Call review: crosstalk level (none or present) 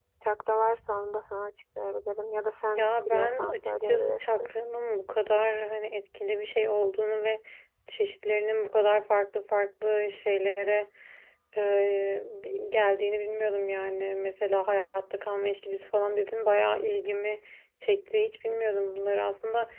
present